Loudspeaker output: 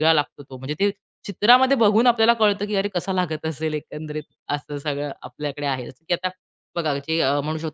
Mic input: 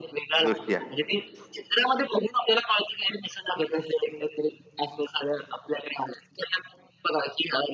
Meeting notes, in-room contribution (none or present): present